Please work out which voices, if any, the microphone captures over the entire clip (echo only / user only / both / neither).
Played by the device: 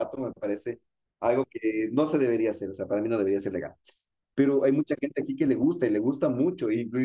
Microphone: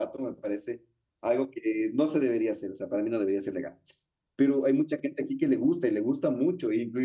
echo only